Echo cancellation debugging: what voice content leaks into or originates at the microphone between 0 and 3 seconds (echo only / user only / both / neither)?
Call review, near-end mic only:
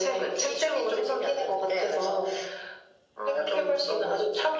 echo only